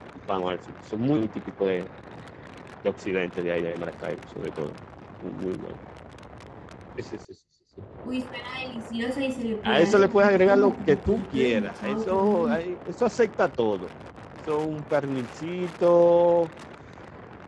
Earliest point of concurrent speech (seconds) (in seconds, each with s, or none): 9.6 s